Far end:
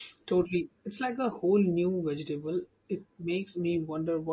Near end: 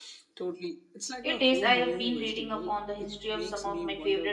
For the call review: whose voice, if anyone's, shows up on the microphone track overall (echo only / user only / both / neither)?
both